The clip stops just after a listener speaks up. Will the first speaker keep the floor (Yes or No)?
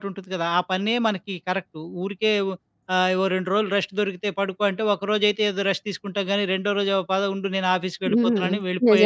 No